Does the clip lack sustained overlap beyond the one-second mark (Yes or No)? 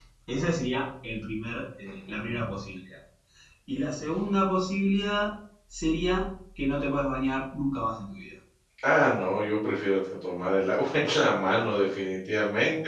Yes